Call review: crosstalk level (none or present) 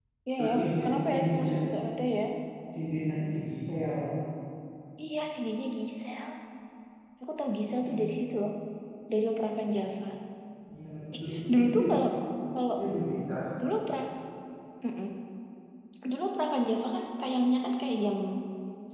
present